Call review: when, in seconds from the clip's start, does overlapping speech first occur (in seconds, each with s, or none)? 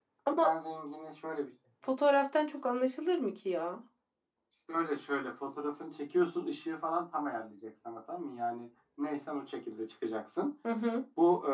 none